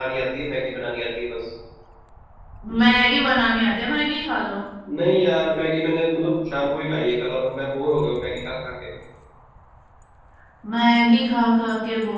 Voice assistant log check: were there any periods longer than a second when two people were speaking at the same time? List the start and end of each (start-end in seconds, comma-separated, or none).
none